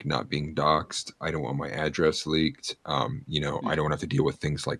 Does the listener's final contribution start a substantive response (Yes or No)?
No